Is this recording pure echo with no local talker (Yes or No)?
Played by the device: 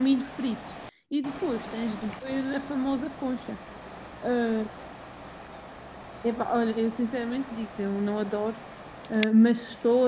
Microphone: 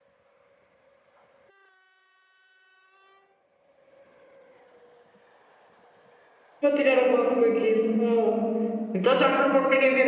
No